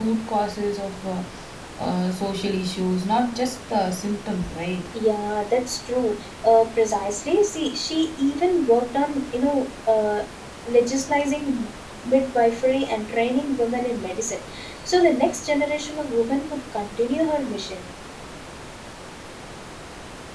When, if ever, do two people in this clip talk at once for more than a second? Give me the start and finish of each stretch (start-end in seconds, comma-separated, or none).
none